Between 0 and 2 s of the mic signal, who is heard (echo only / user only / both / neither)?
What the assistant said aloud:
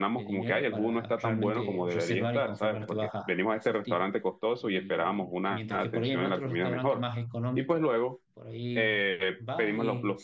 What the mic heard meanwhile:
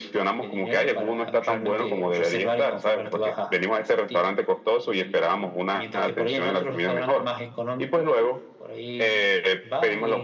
echo only